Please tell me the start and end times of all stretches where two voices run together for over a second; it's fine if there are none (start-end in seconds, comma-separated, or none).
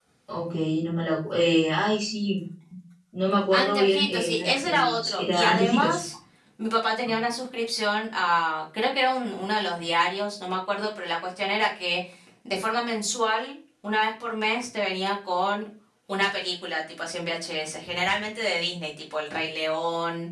3.5-6.0